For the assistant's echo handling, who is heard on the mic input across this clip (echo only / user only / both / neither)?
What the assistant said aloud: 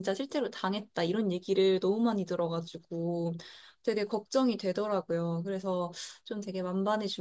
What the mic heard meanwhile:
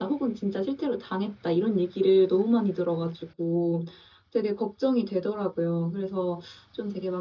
echo only